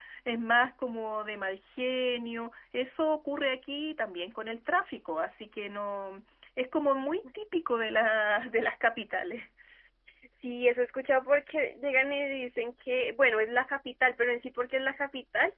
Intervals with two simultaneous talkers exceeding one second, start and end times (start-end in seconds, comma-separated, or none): none